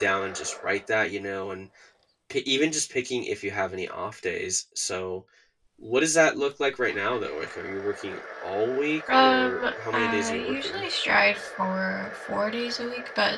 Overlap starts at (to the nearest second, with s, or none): 9 s